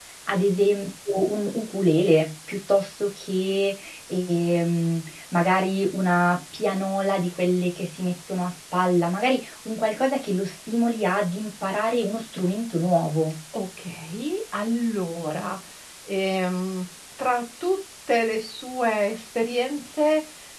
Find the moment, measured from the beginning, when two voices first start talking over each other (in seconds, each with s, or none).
none